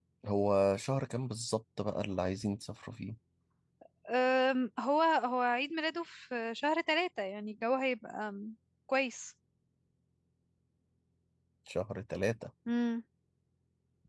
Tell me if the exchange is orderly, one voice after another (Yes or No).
Yes